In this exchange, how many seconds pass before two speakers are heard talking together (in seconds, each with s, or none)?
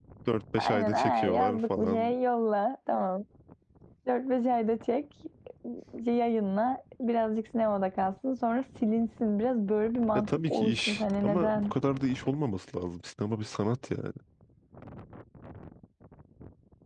0.6 s